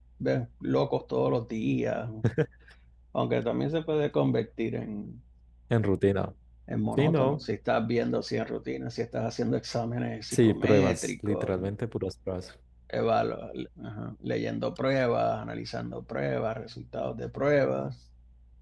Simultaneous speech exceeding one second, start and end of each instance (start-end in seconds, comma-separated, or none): 10.3-11.6